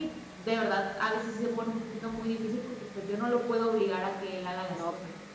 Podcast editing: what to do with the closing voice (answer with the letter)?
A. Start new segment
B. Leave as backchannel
B